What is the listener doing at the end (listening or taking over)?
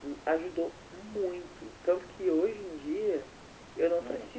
listening